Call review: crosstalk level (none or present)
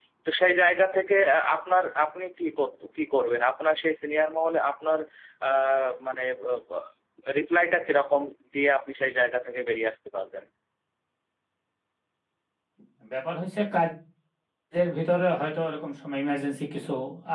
none